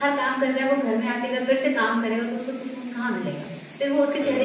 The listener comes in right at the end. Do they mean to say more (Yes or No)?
Yes